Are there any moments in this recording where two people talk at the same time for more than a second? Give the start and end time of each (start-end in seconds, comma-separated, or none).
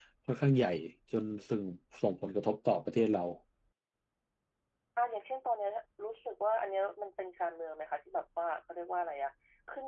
none